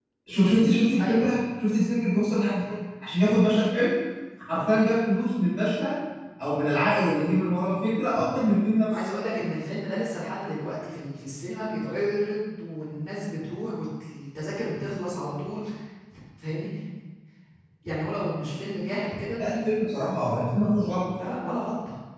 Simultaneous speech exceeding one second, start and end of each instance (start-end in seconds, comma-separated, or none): none